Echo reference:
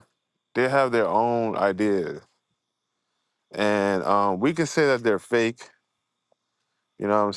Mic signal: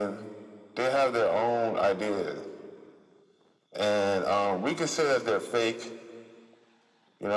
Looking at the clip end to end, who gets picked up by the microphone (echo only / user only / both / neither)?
echo only